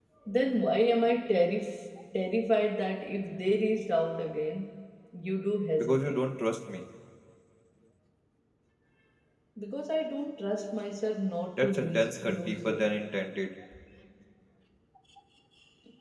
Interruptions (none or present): present